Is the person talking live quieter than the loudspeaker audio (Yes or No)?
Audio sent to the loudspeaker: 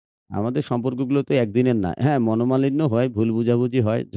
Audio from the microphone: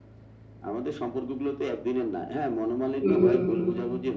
No